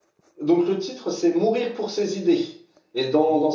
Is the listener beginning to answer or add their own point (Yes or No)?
No